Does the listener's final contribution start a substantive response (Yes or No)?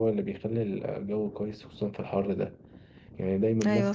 No